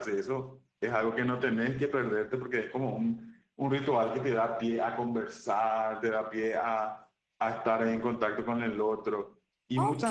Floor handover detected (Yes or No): Yes